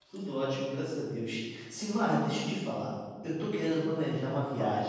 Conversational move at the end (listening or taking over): listening